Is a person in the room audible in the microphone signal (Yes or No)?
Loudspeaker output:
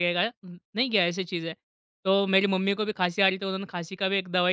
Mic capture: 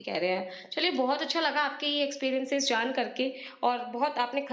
Yes